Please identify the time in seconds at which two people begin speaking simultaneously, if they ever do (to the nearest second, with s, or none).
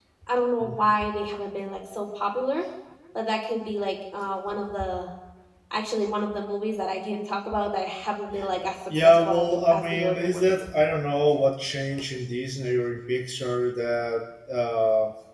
9 s